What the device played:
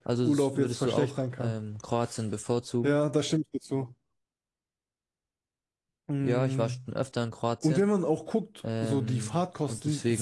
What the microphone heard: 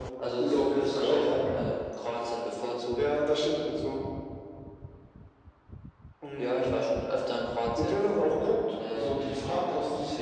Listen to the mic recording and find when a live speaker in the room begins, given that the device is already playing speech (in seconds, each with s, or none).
none